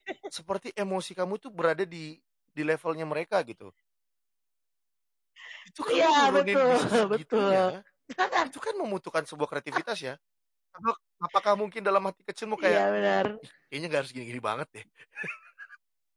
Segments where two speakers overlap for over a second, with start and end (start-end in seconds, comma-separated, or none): 5.9-7.6